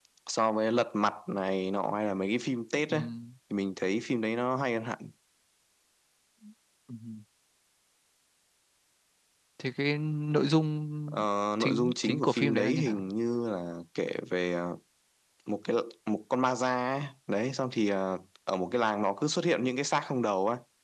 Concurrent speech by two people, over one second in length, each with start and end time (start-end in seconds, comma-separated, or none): 11.6-13.0